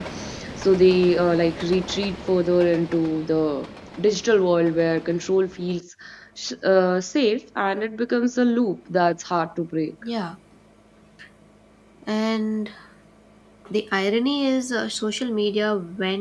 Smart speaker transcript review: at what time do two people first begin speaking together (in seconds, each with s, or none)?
none